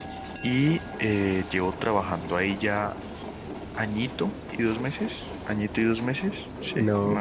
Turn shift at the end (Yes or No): Yes